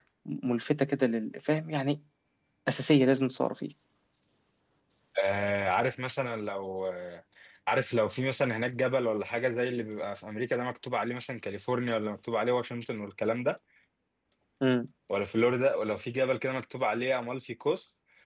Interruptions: none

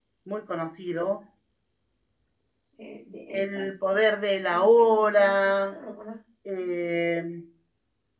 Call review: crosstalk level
present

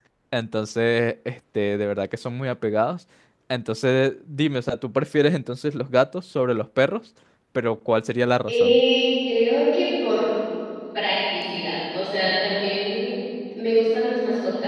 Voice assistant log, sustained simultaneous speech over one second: none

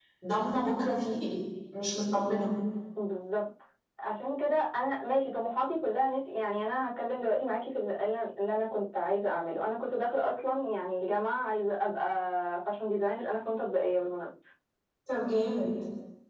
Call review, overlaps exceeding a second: none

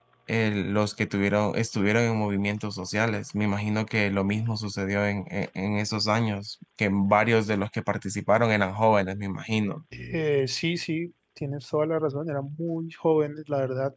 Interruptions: none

